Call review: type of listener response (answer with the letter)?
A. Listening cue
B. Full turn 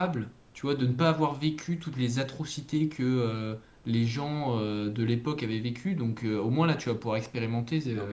B